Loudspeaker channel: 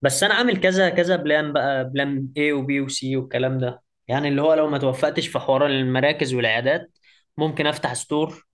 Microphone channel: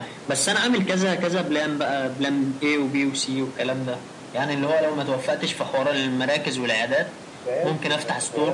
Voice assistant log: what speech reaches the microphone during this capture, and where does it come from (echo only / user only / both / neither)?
both